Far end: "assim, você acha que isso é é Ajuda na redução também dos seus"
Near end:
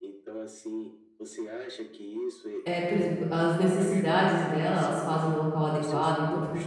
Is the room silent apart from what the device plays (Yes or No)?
No